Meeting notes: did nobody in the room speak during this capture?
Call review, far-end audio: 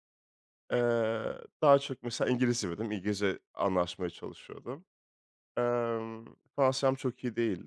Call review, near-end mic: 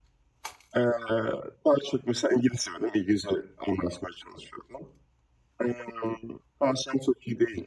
Yes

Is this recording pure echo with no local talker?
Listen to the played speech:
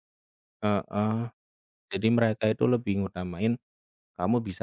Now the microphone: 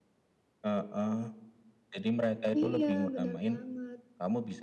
No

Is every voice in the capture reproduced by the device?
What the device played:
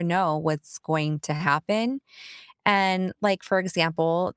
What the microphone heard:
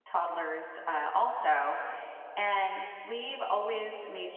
No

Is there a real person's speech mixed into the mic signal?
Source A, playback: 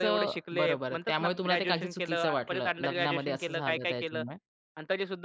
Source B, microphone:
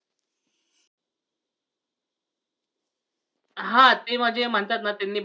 Yes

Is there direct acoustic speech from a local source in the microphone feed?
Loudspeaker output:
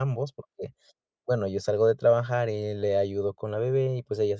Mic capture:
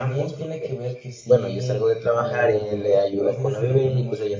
Yes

